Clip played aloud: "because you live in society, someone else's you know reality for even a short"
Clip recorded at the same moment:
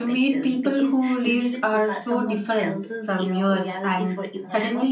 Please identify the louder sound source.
user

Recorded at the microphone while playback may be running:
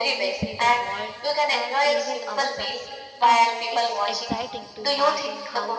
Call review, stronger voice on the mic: echo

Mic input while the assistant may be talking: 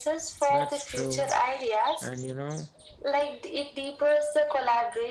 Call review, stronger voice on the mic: echo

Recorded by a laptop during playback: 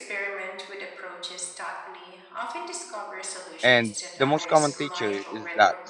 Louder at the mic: user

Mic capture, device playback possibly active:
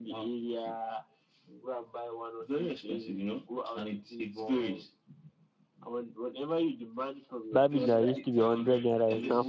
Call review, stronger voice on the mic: user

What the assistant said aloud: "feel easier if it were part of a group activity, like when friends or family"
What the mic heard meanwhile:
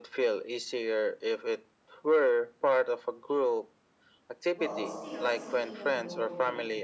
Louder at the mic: echo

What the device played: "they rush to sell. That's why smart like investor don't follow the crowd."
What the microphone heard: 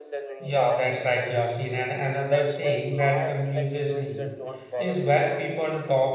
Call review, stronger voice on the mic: user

